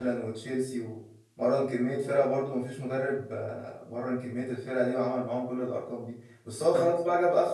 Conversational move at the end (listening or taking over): listening